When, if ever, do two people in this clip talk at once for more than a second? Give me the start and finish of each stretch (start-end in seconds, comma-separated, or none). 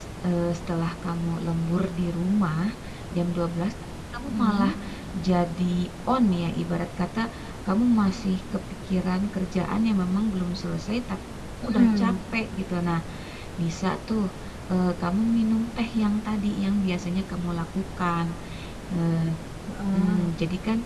none